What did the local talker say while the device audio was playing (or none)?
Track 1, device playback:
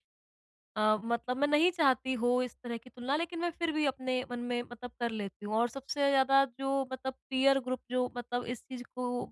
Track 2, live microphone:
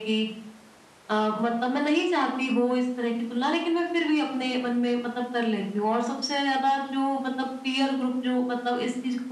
none